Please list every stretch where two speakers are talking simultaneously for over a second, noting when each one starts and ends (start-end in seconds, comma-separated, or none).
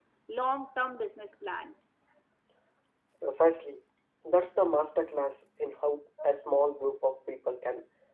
none